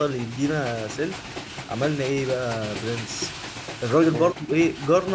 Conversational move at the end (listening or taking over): listening